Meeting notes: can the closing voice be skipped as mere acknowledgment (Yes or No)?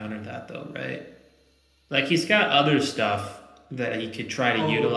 Yes